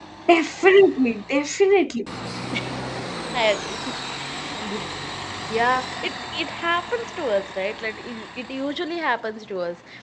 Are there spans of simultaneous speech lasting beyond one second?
No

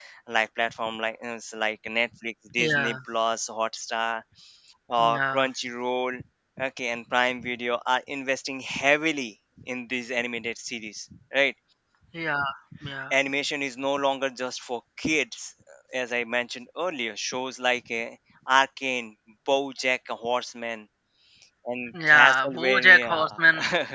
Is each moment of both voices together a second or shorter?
No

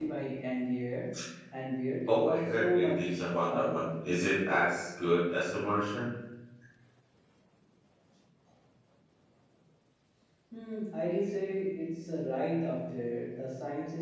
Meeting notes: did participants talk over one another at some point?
Yes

